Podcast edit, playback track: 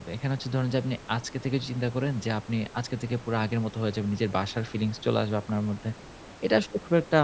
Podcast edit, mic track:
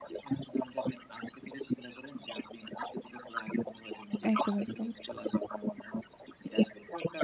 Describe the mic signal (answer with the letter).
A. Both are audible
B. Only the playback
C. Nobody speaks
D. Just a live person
A